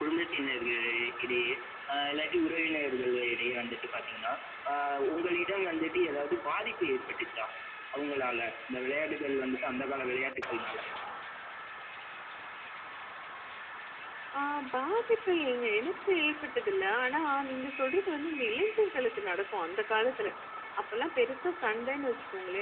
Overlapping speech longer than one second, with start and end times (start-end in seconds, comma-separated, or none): none